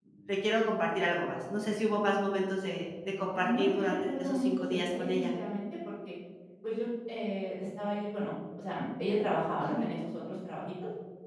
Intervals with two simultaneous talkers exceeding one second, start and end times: 3.3-5.2

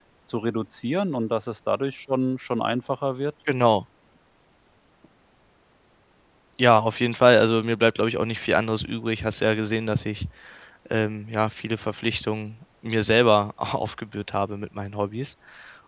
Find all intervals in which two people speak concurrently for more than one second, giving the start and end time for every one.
none

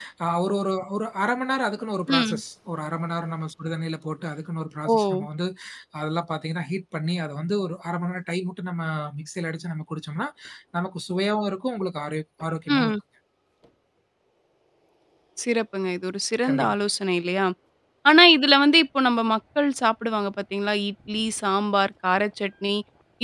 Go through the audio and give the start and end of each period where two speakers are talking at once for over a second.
none

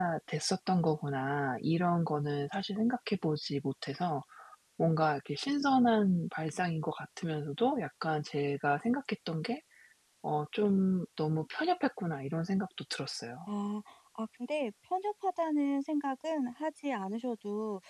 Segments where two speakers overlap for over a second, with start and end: none

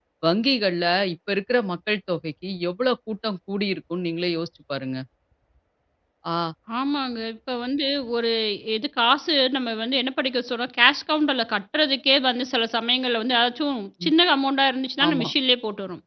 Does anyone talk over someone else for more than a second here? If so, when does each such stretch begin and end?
none

